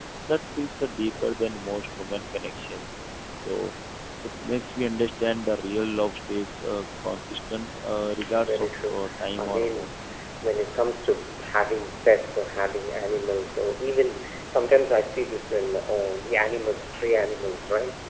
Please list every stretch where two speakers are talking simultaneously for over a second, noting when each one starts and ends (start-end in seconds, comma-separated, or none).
8.4-9.9